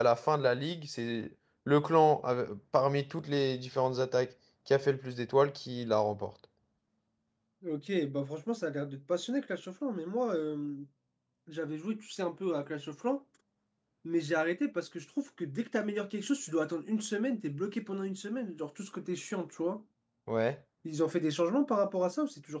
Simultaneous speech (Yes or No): No